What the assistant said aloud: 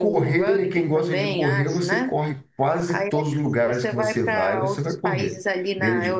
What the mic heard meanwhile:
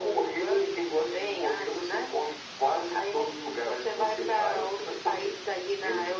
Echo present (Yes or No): Yes